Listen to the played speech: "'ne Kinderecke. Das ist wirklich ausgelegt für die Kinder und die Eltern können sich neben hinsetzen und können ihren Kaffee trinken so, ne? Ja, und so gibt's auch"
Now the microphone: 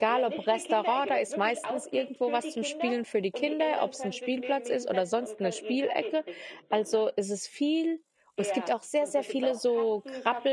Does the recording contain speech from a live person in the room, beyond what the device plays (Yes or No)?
Yes